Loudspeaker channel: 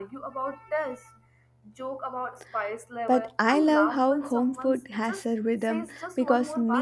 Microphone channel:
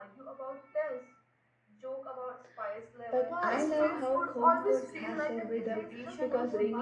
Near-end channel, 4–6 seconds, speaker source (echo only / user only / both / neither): both